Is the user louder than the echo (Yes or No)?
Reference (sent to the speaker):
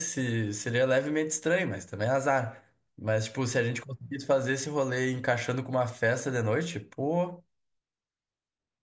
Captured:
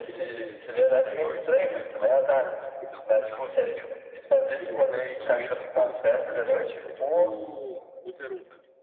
No